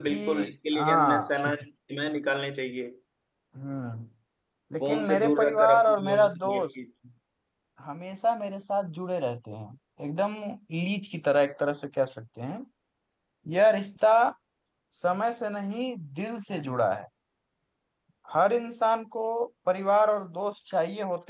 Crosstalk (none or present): present